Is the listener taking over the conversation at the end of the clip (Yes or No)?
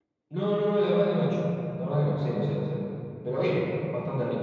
Yes